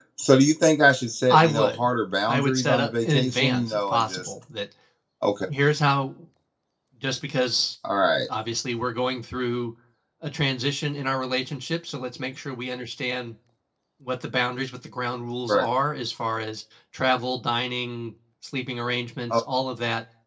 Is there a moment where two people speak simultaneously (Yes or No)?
Yes